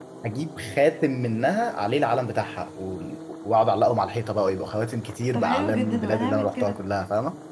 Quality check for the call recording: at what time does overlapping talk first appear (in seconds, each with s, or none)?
5.3 s